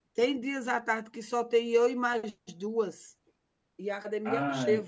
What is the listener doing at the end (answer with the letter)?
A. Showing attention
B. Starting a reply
A